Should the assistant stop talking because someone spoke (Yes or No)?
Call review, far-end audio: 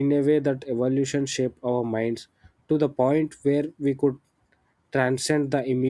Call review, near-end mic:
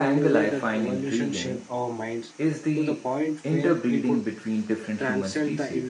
Yes